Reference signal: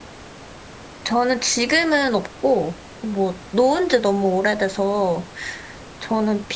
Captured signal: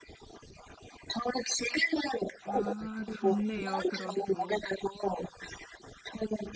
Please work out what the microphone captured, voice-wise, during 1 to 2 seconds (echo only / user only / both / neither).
echo only